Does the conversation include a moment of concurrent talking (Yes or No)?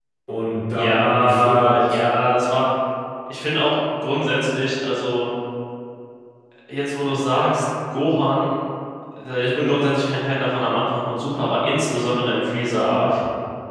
Yes